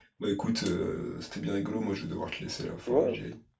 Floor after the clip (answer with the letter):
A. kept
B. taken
B